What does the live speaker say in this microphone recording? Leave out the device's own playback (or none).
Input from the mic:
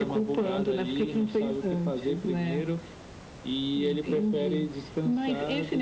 none